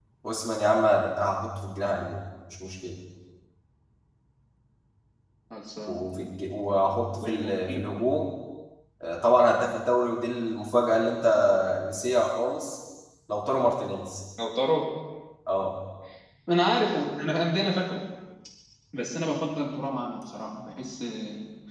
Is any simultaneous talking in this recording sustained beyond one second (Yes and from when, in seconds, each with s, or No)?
No